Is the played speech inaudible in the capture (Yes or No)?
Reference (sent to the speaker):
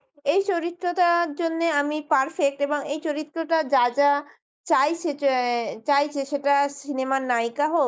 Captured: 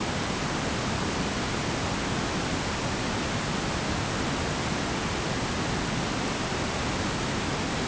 Yes